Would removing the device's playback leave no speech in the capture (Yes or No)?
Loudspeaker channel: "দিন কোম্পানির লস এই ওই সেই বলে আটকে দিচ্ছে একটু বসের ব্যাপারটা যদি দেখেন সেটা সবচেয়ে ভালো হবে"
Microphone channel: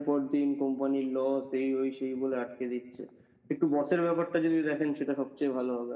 Yes